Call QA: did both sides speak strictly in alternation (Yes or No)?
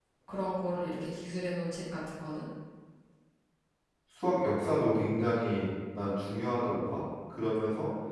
Yes